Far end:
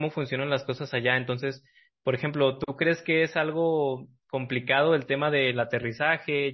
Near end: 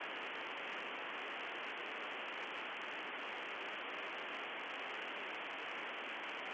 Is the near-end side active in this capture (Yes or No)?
No